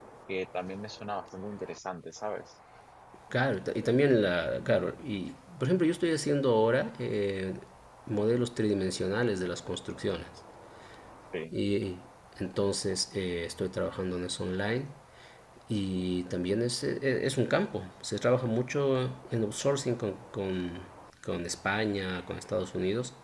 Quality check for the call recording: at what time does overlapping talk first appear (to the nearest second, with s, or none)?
none